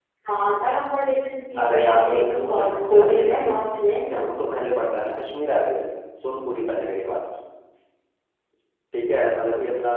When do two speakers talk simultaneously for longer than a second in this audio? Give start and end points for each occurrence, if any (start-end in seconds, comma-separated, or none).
1.6-3.5